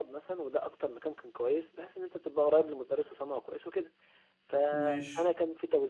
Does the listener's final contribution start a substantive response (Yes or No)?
No